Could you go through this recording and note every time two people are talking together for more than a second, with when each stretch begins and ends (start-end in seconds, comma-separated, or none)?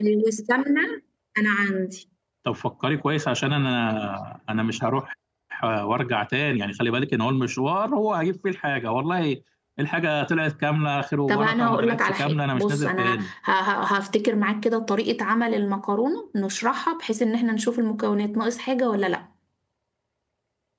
11.3-13.3